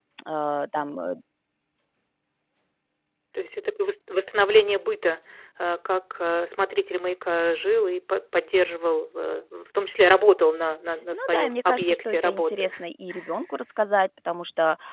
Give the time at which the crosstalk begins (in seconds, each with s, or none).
11.1 s